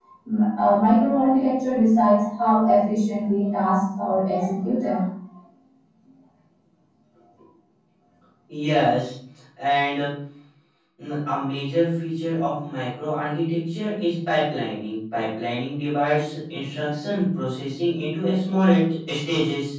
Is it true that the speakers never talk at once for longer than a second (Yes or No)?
Yes